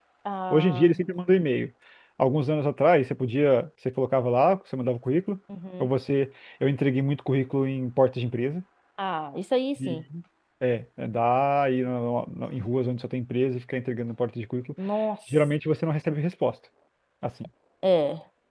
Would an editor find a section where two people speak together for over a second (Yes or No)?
No